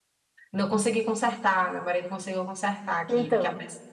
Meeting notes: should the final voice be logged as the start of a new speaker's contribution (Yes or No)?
Yes